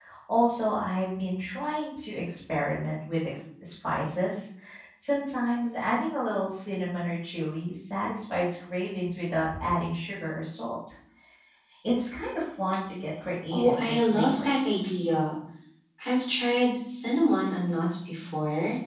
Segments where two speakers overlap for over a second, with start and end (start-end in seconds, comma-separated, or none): 13.5-14.7